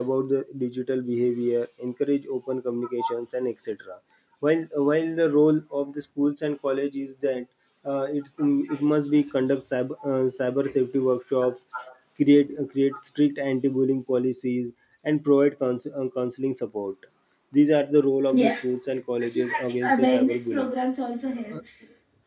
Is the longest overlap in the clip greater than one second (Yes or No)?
Yes